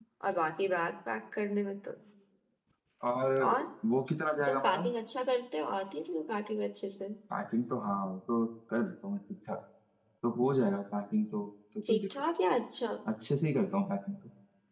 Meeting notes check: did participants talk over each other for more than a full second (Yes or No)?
No